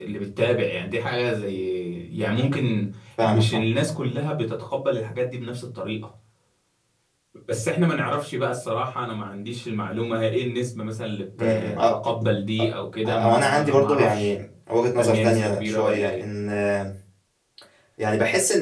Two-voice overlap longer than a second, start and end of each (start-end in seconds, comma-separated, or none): 13.1-14.3, 15.0-16.2